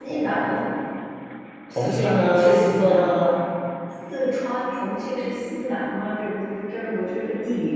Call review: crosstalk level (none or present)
present